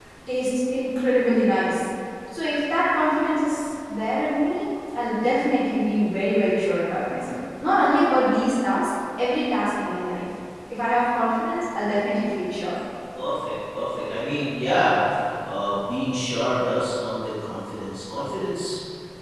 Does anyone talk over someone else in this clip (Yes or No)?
No